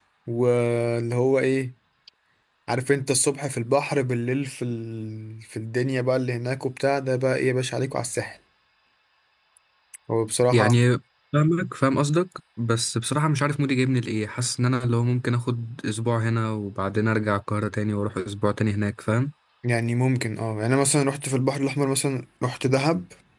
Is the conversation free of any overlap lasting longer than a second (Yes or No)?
Yes